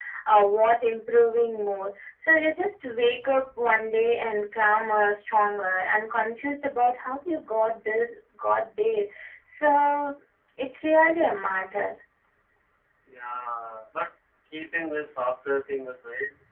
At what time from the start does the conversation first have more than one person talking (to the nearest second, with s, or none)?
none